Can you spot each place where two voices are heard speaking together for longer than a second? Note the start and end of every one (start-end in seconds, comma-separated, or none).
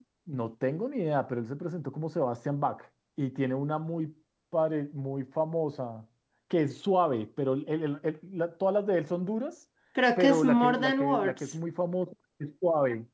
10.2-11.5